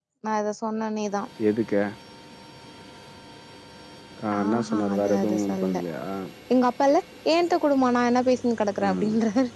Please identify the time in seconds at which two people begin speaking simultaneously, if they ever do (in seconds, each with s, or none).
4.3 s